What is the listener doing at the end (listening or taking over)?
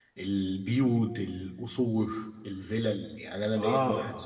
listening